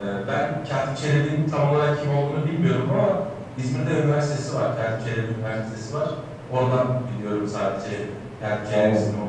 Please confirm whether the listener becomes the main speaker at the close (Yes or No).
Yes